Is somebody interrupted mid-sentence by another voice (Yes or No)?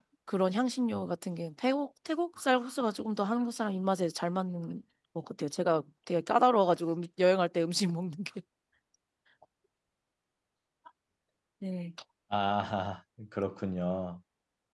No